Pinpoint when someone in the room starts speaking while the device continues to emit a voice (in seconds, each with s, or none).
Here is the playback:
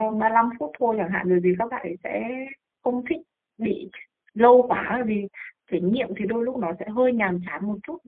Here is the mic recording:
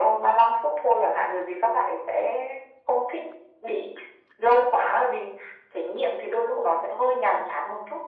none